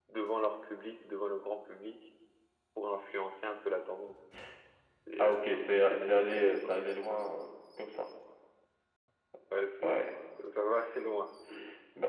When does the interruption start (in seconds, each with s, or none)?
5.2 s